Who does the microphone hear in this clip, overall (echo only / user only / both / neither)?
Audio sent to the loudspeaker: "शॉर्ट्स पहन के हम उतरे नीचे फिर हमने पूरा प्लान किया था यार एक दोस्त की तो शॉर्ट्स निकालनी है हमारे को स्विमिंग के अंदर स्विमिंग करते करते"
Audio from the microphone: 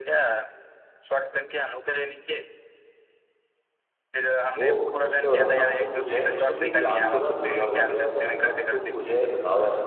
both